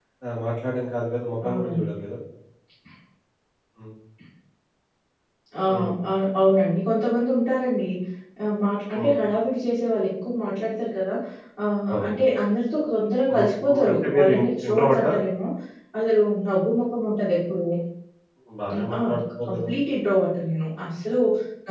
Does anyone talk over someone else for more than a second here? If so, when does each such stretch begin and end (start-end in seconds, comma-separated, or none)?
13.3-15.1